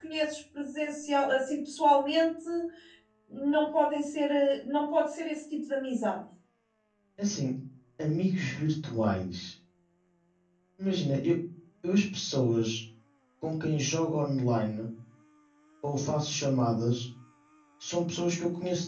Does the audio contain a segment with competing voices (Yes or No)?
No